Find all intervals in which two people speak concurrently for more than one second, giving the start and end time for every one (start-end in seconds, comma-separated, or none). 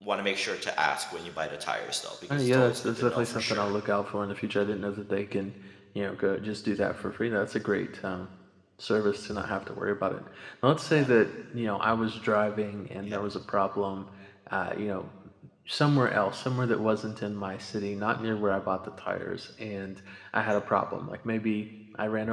2.3-3.7